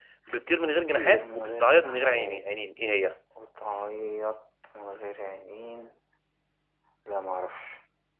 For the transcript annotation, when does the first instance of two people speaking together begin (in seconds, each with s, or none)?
0.9 s